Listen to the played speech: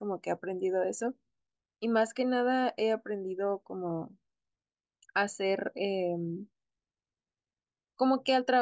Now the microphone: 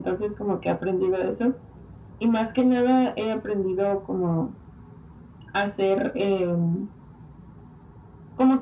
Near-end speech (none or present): none